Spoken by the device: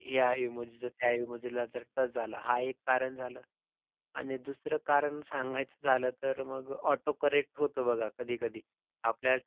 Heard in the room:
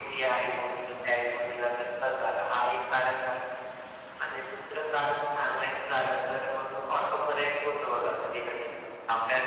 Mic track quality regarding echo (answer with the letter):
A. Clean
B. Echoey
B